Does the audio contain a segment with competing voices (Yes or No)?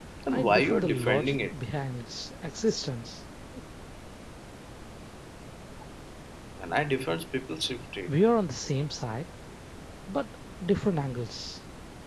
Yes